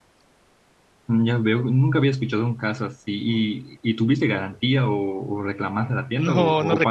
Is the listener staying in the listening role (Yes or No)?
No